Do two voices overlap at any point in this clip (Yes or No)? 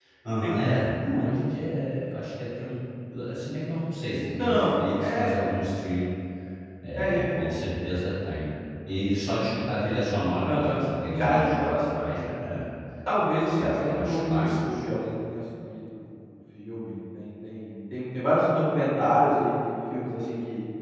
Yes